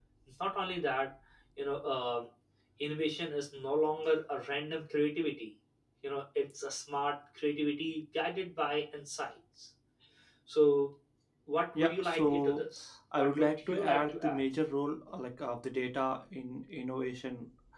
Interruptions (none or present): present